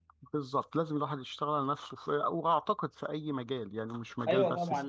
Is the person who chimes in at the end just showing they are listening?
No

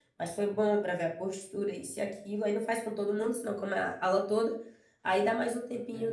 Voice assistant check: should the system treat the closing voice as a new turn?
No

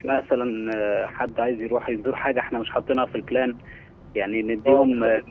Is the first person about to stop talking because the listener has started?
Yes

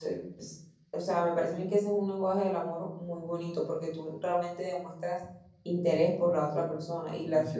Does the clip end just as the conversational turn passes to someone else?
No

